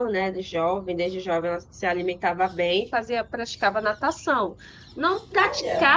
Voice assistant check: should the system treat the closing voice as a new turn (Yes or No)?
No